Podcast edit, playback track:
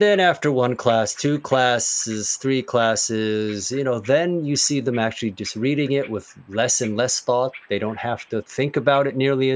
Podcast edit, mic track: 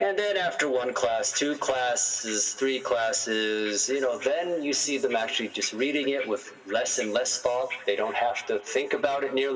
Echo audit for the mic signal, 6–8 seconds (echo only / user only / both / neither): echo only